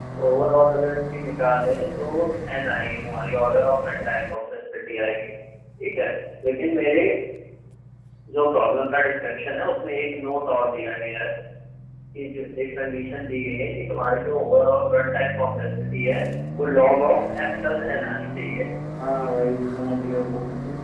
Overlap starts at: none

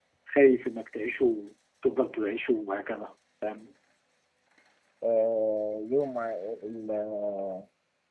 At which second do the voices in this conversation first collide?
none

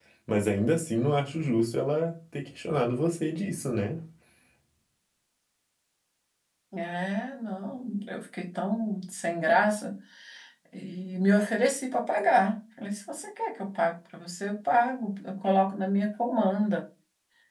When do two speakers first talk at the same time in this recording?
none

